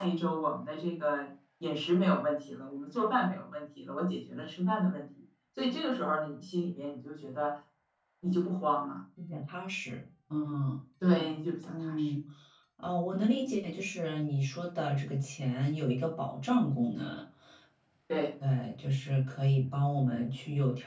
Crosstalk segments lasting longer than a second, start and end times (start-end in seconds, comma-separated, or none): none